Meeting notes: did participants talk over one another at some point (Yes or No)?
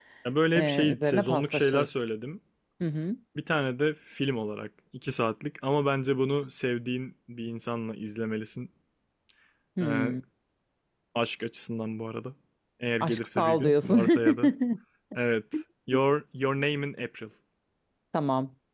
Yes